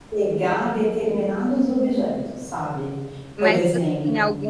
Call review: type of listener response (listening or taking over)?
taking over